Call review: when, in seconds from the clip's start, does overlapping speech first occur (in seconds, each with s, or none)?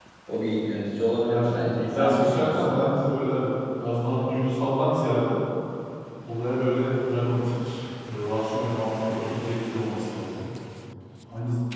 1.2 s